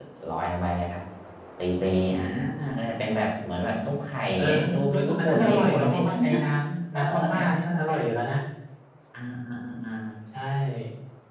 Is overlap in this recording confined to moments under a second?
No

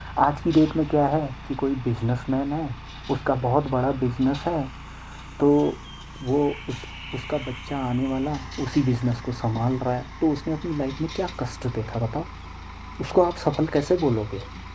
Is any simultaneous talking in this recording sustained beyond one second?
No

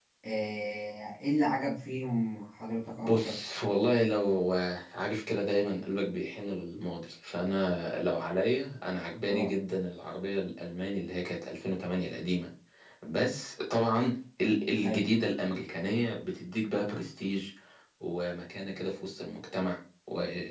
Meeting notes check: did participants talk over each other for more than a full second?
No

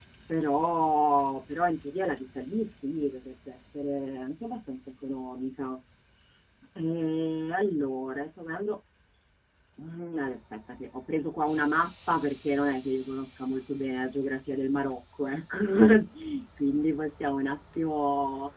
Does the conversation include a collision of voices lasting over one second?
No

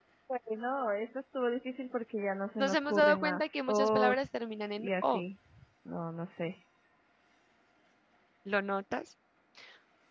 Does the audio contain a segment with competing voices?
Yes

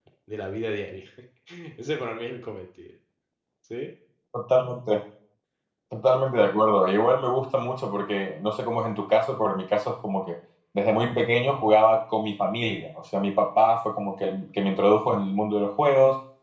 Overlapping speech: No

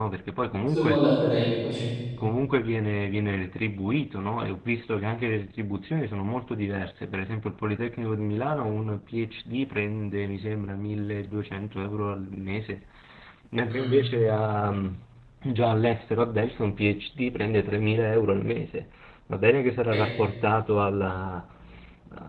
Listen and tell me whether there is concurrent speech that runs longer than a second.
No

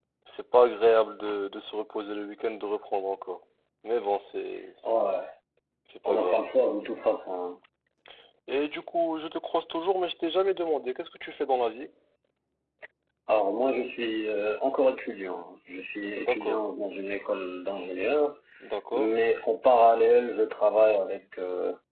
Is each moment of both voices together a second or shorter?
Yes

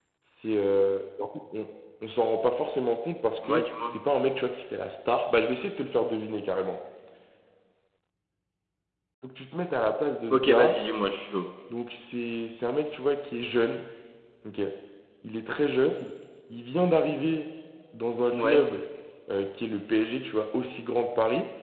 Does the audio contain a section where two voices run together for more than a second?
No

